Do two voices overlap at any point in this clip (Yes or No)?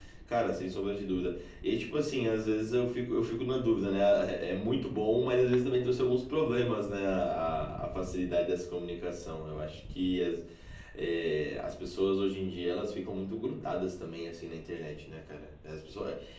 No